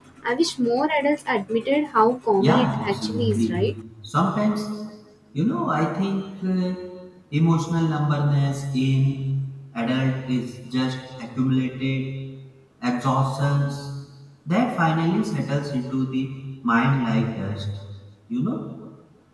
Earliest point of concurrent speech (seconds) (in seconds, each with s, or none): 2.4 s